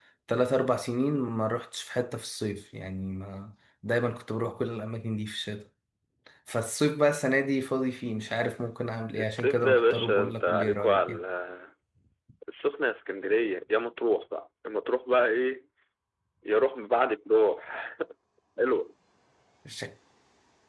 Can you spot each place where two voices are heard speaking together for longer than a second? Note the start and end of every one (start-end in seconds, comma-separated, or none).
9.2-11.2